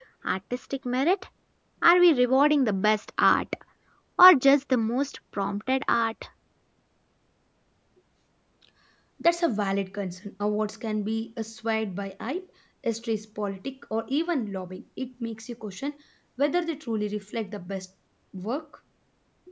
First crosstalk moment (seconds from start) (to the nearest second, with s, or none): none